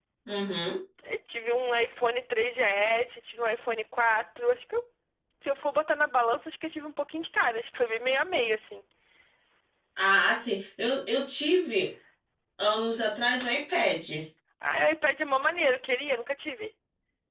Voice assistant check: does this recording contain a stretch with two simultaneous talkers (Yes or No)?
No